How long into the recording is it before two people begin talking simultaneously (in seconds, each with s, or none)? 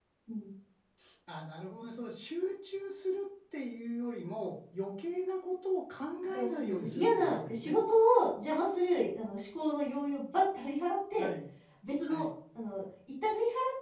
6.2 s